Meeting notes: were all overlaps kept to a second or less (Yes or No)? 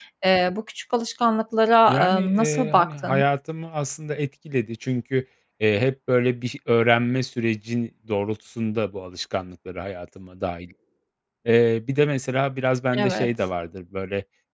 No